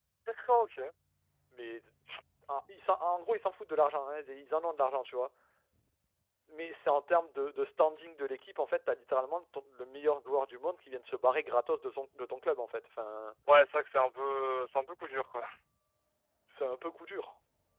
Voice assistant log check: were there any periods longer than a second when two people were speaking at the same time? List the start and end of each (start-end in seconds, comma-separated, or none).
none